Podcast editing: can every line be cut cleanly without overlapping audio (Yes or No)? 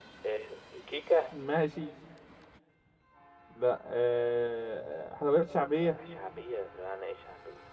Yes